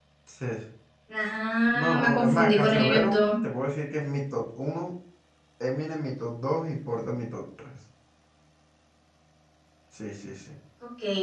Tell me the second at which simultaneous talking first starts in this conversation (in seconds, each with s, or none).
1.7 s